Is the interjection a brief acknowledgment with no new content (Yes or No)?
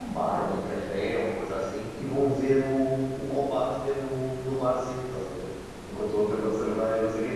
Yes